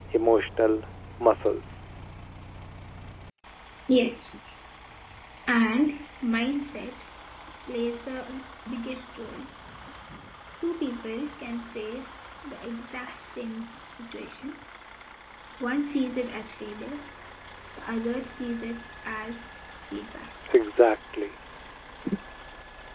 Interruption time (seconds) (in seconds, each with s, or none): none